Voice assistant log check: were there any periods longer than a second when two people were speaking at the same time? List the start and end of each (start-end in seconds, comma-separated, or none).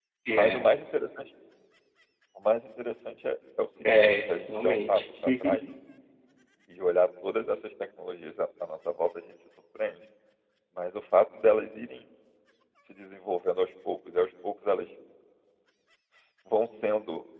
3.8-5.6